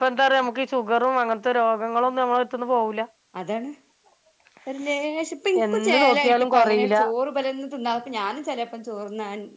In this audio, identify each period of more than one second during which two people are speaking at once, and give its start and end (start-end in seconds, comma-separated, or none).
5.6-7.0